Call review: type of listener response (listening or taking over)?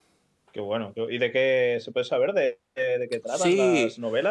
taking over